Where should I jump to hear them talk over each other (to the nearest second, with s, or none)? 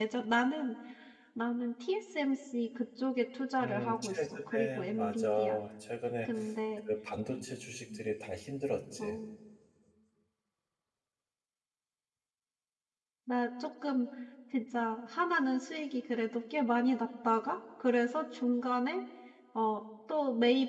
4 s